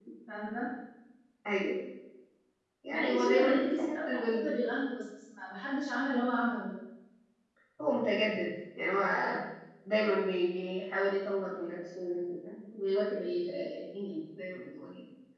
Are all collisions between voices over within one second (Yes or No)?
No